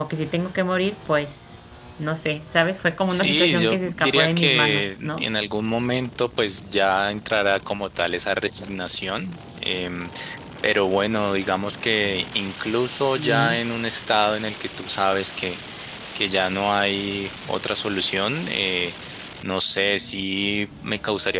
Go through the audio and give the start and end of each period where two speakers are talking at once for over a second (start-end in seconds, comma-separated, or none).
3.1-5.2